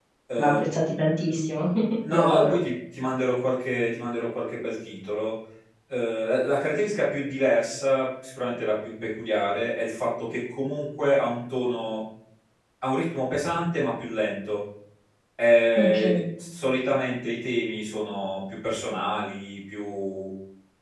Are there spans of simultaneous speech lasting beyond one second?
No

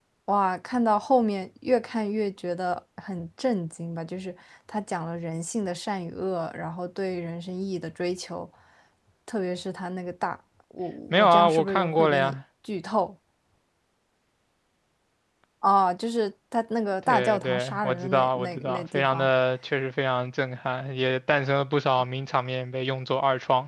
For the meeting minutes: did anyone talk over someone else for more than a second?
Yes, from 11.1 s

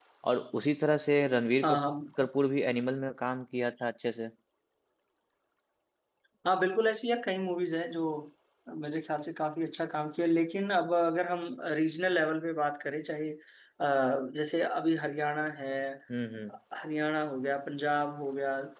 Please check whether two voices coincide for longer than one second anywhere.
No

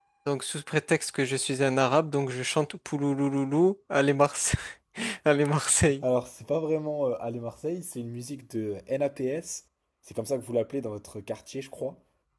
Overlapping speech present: No

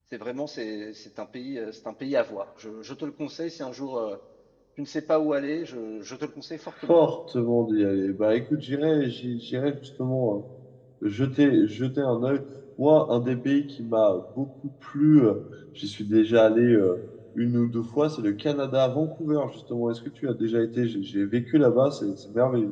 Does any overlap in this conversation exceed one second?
No

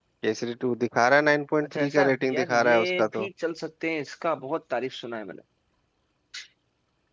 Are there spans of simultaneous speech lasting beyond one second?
Yes, from 1.6 s

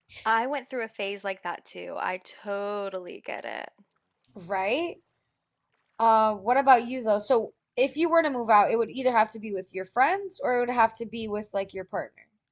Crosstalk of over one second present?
No

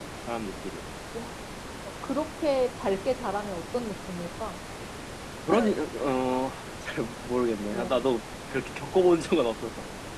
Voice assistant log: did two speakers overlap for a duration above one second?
No

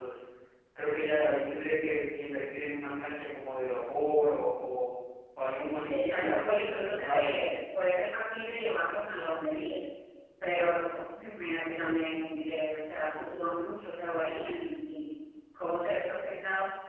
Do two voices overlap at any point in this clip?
Yes, from 6.0 s

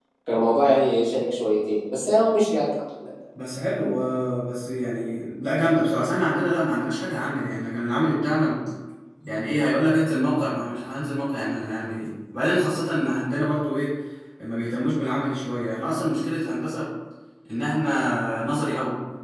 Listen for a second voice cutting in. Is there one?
No

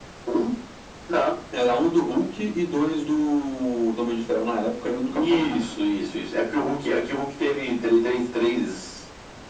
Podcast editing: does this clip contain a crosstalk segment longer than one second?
No

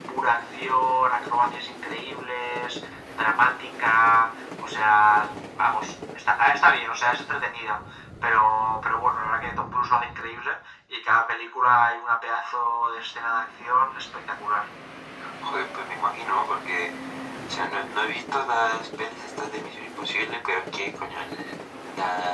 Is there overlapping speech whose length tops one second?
No

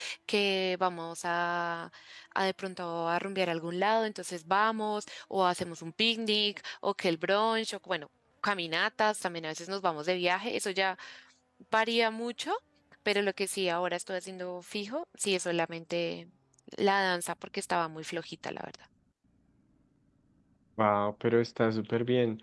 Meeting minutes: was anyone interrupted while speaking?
No

